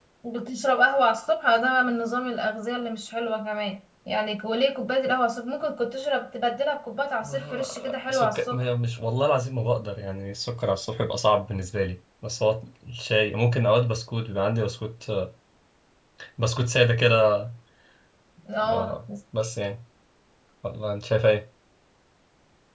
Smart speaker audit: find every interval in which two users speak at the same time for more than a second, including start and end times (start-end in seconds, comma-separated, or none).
7.2-8.6